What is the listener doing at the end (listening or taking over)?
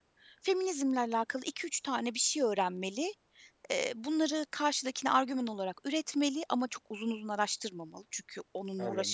taking over